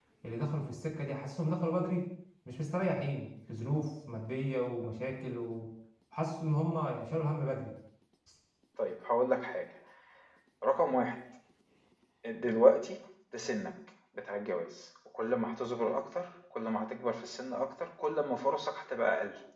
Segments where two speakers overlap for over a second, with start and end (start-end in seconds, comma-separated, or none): none